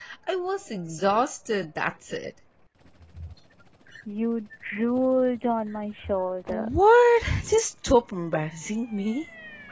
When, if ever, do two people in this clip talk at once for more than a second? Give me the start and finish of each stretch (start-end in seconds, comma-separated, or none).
none